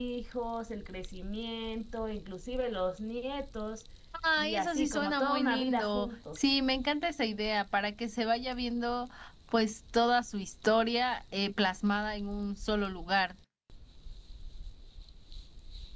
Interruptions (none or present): present